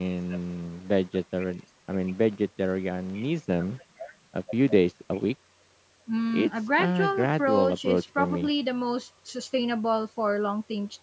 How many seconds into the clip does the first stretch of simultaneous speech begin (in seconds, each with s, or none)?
6.3 s